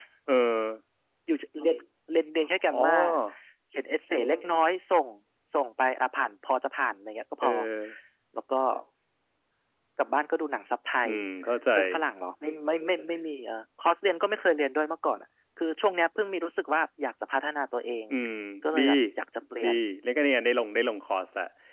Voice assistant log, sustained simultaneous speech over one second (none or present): none